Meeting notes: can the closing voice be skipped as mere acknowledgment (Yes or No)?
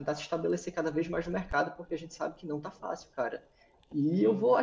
Yes